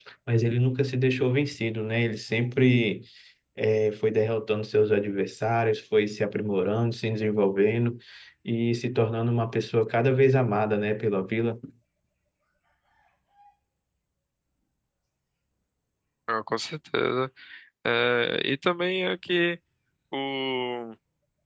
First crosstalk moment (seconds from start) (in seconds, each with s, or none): none